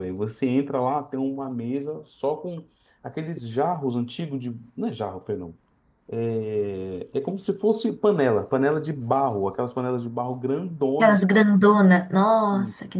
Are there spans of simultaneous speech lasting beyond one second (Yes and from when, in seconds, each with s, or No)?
No